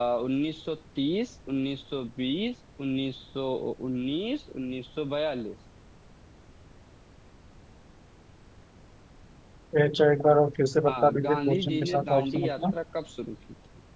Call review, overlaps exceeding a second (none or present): present